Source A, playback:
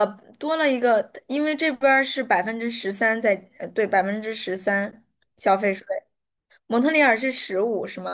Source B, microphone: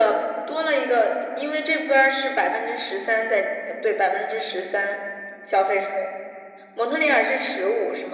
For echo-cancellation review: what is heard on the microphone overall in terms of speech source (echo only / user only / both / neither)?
echo only